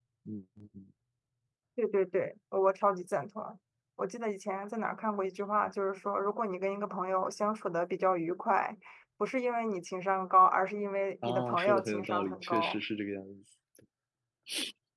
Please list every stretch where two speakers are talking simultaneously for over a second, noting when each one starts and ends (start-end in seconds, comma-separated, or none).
11.2-12.8